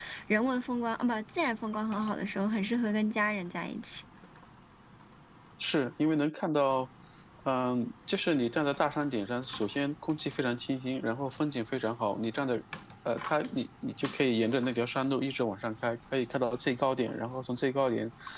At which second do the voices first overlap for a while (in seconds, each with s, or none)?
none